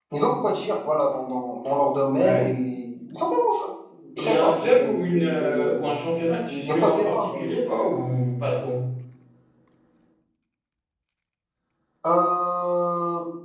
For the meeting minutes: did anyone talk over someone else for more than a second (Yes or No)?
Yes